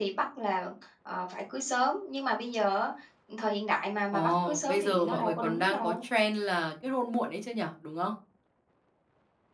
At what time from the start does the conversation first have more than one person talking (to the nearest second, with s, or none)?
4 s